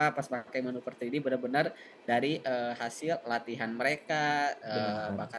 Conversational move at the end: listening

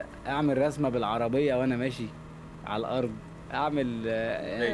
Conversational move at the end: taking over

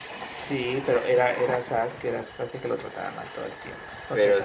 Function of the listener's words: taking over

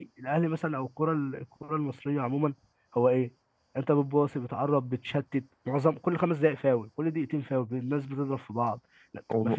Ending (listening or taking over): taking over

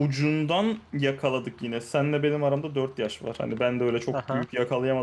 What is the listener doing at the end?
listening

